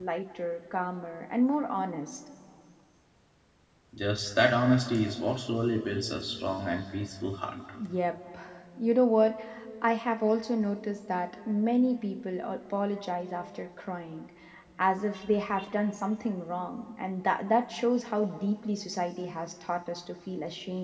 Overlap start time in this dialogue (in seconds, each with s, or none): none